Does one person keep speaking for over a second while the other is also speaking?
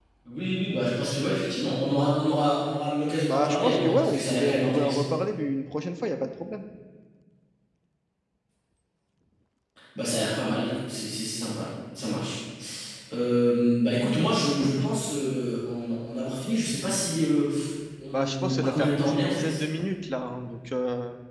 Yes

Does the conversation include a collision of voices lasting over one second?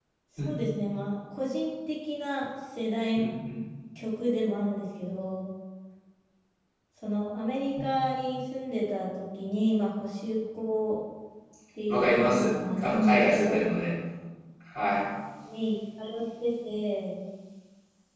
Yes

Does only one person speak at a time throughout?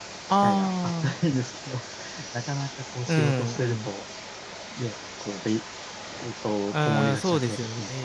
No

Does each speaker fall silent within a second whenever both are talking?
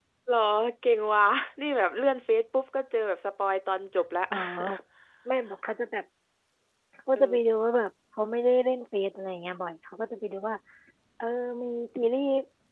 Yes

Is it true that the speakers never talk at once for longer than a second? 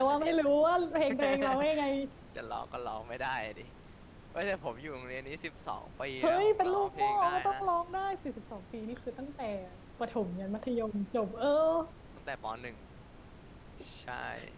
No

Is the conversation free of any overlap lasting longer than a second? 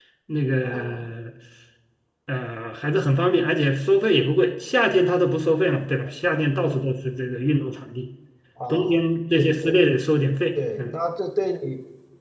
Yes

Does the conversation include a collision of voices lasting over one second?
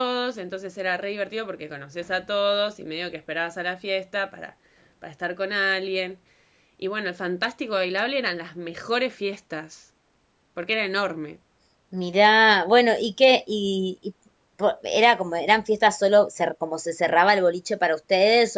No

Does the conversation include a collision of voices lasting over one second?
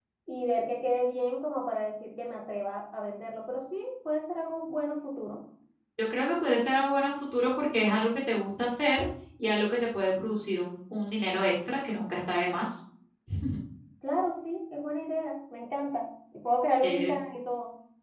No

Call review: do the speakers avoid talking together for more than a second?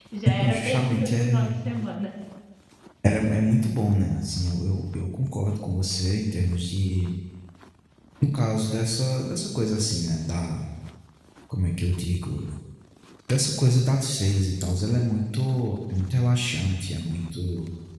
No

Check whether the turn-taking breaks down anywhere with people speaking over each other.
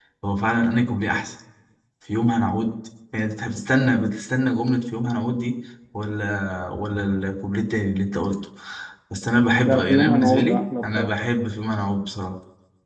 Yes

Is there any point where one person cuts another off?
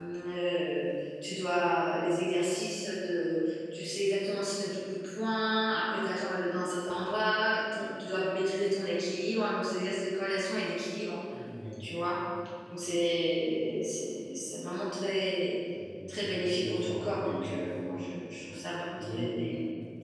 Yes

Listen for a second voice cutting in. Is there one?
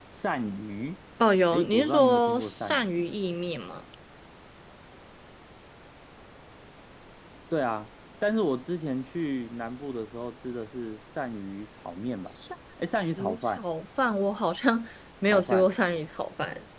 Yes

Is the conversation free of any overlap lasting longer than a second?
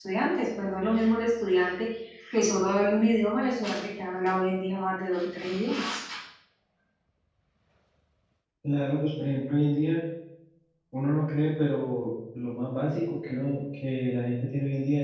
Yes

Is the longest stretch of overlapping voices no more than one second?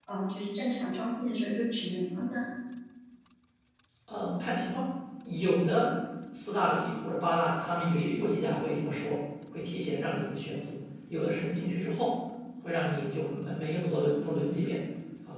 Yes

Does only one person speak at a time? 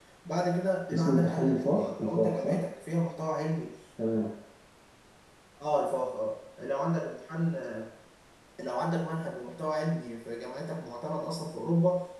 No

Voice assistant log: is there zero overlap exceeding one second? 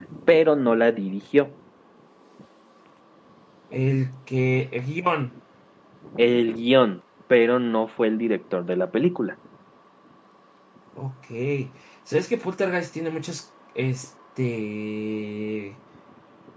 Yes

